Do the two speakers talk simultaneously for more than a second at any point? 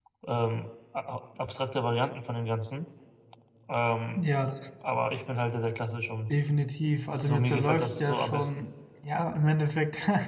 Yes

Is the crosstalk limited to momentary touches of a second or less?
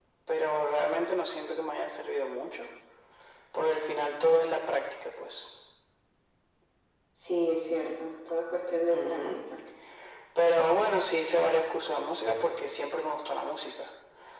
Yes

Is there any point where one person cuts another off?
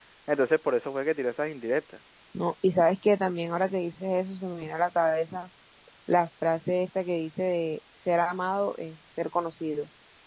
No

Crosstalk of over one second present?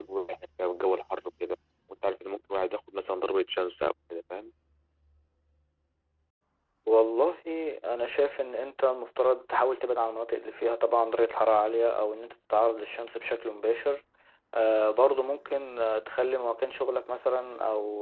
No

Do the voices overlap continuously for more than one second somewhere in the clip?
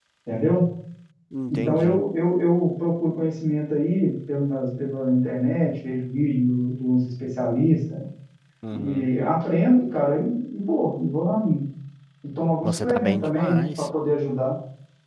Yes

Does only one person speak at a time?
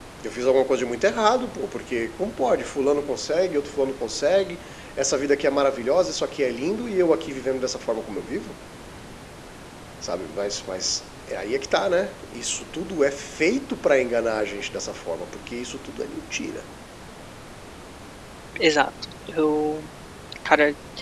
Yes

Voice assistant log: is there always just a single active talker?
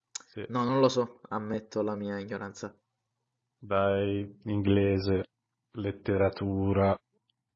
Yes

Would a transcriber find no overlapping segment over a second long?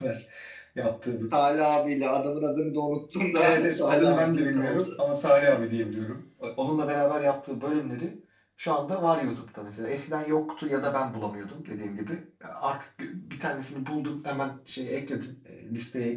No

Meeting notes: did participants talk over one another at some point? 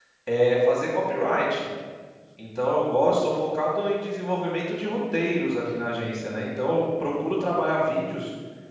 No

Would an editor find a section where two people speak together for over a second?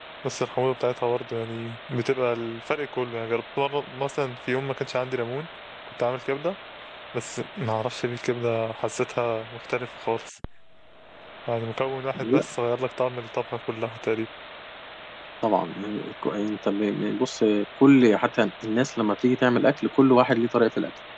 No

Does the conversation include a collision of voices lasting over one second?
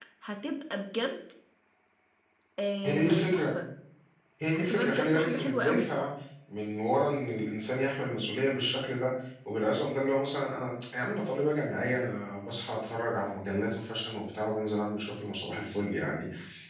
Yes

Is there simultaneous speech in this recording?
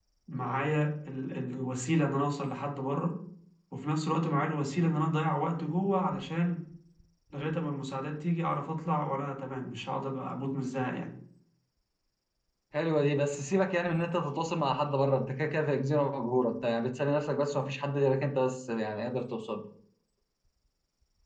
No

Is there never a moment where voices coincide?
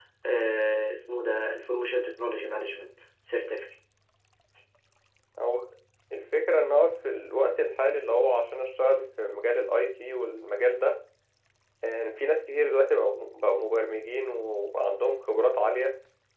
Yes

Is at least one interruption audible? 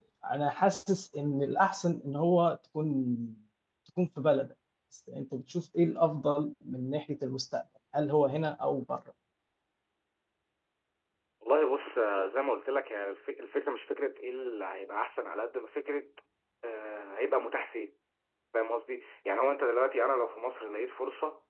No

